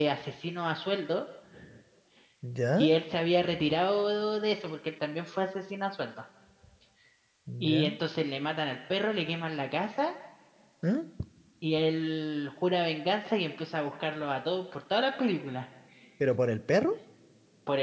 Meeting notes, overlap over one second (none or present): none